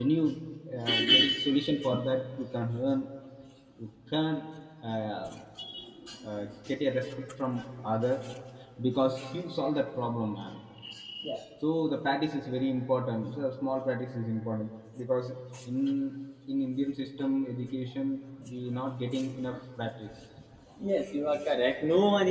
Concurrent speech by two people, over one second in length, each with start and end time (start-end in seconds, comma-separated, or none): none